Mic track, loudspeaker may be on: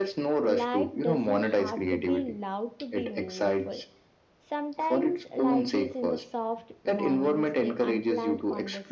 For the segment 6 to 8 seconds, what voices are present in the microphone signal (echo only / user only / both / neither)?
both